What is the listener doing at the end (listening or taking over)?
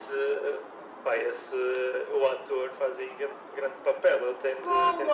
listening